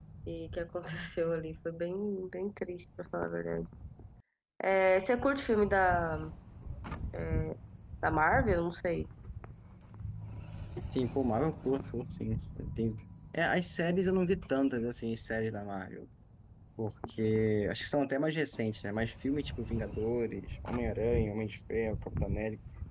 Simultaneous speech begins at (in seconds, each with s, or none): none